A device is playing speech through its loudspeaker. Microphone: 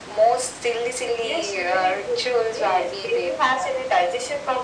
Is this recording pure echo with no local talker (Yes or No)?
Yes